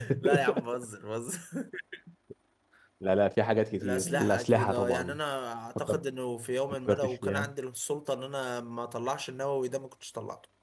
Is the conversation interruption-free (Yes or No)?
No